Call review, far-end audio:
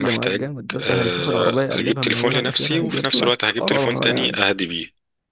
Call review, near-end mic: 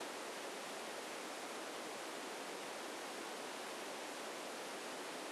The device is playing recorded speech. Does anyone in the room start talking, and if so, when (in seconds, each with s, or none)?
none